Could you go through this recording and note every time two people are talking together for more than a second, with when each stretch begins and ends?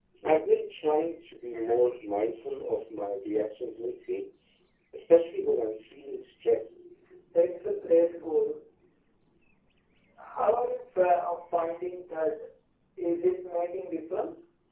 none

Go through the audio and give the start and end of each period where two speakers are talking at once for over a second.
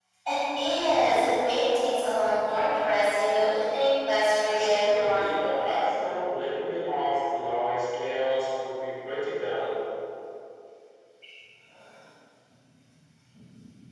4.4-6.0

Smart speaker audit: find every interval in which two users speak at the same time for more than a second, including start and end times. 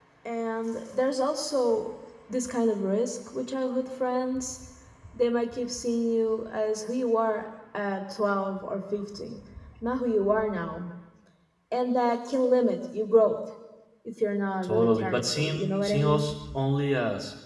14.6-16.3

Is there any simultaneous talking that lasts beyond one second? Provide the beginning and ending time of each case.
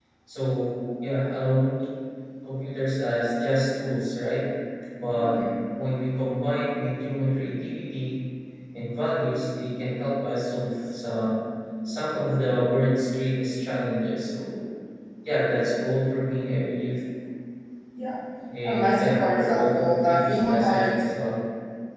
18.6-21.0

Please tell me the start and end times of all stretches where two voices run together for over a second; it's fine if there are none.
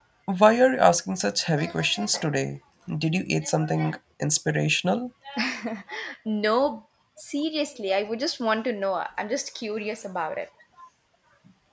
none

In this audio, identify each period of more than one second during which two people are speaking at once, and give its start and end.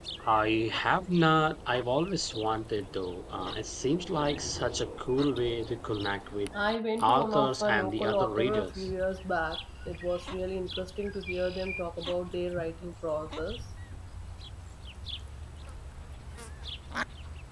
7.0-8.9

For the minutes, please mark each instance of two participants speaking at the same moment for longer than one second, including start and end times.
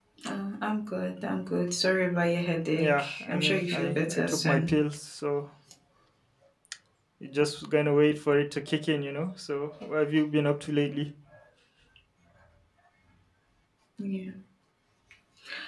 2.8-4.8

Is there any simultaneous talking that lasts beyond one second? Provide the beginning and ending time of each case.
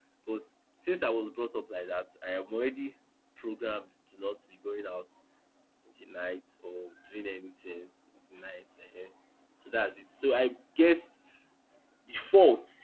none

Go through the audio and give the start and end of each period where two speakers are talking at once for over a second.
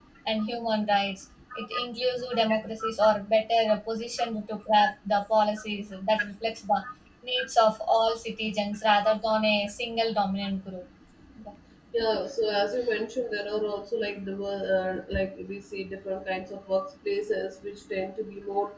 none

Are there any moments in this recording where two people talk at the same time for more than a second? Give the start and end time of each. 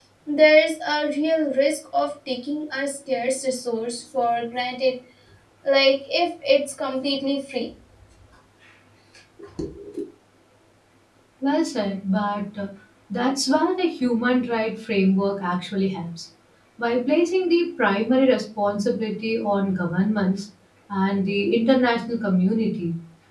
none

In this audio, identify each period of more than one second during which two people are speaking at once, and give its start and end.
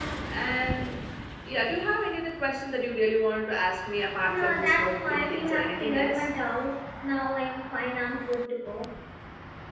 4.3-6.3

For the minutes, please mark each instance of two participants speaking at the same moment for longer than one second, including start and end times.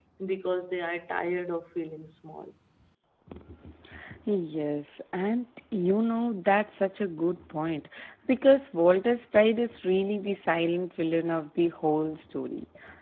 none

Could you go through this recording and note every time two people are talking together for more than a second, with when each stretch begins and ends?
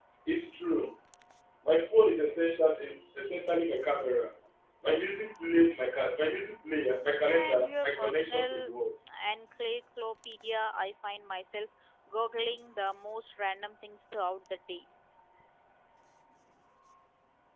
7.2-8.7

